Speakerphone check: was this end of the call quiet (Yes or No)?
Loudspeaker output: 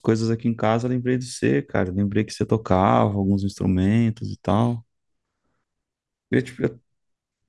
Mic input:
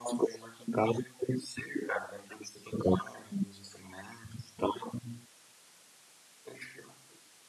Yes